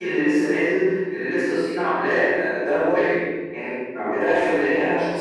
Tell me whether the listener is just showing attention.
Yes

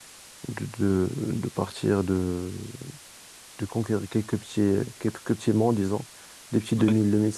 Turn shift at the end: No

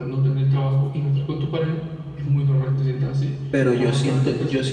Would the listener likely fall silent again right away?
No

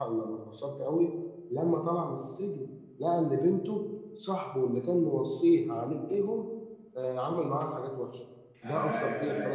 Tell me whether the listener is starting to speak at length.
Yes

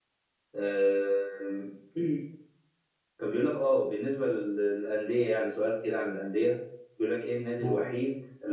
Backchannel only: Yes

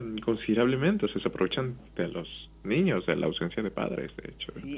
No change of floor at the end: No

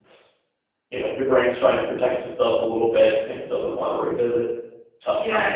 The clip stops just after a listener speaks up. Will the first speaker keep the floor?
No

